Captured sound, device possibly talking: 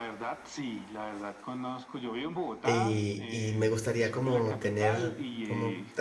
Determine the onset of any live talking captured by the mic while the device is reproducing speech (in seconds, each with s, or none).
2.6 s